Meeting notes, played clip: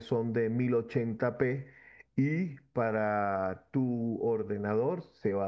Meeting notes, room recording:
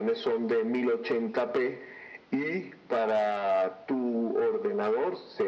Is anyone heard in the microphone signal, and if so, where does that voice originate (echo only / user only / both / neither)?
echo only